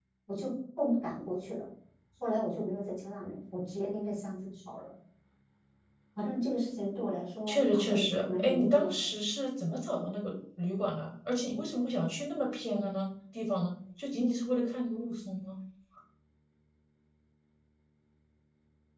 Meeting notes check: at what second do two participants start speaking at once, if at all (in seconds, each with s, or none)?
7.5 s